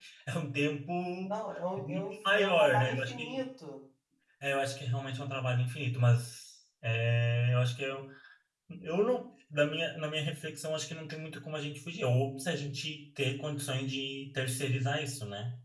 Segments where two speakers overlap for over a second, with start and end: 1.8-3.4

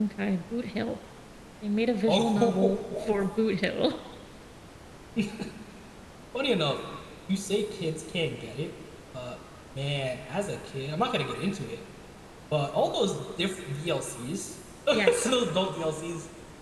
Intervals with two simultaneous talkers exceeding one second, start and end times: 2.1-3.4

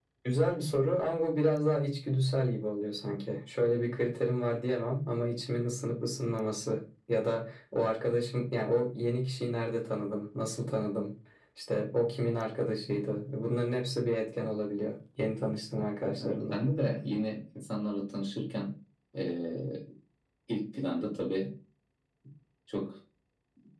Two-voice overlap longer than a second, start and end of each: none

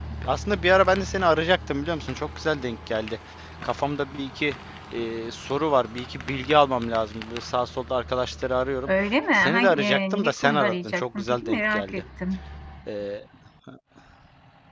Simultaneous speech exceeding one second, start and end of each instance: 9.3-12.0

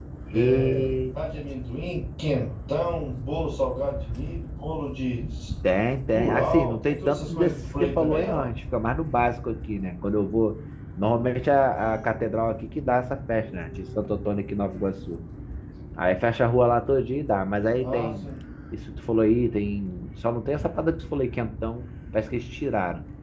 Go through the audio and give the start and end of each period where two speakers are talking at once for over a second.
6.1-8.5

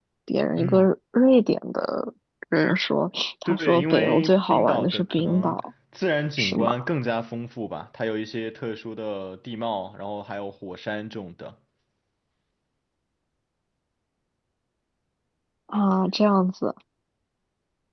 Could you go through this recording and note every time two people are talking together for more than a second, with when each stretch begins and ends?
3.5-5.6

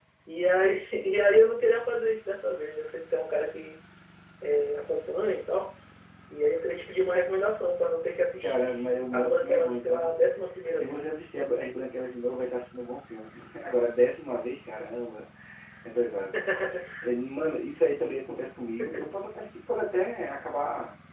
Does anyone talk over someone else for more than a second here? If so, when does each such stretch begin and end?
8.4-10.1

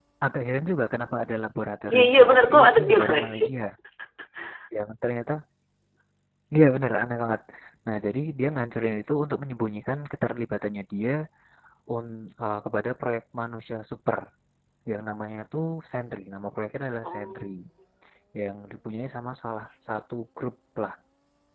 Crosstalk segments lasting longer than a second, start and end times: 1.9-3.5

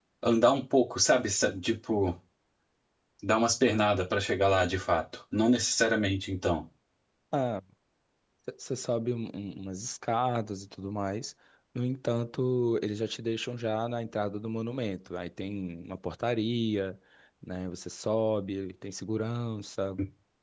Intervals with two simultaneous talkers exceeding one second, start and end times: none

